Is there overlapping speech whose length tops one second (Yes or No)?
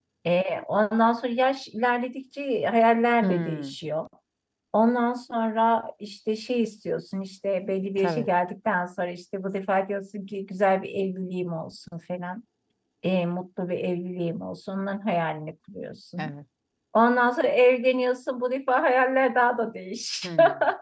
No